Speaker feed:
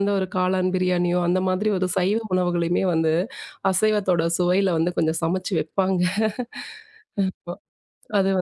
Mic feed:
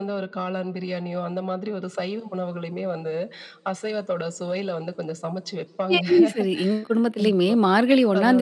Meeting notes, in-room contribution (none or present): present